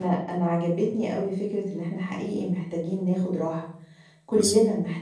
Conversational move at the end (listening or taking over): listening